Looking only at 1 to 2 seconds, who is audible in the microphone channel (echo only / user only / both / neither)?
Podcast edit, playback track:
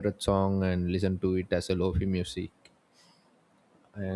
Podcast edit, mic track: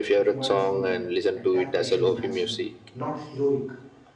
both